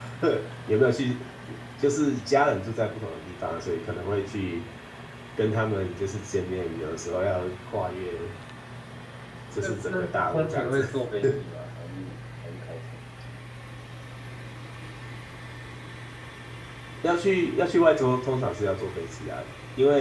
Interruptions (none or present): present